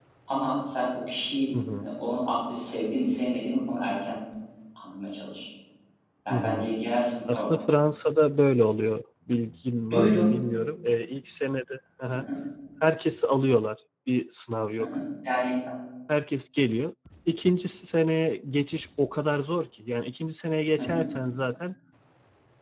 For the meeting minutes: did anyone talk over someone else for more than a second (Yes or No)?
No